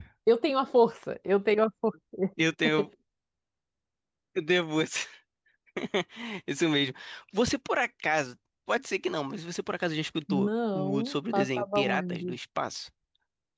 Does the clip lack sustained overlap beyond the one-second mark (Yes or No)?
No